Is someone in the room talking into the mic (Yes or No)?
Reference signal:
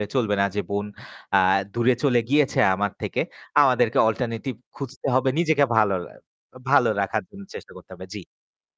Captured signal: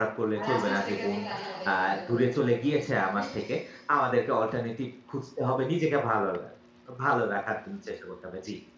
Yes